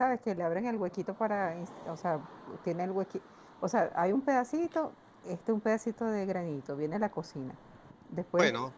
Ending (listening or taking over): listening